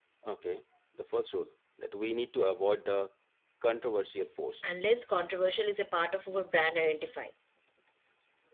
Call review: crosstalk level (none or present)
none